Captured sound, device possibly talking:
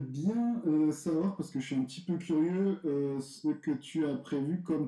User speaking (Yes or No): No